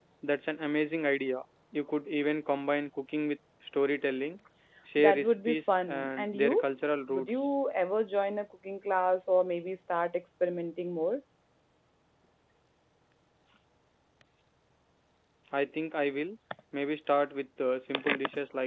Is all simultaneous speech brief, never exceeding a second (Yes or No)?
No